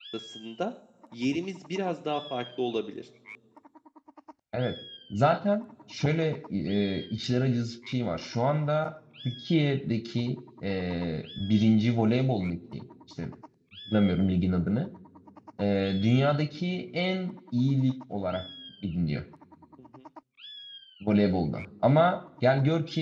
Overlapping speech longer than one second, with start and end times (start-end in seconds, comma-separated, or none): none